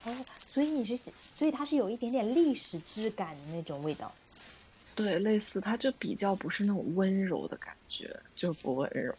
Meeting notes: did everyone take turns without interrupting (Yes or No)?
Yes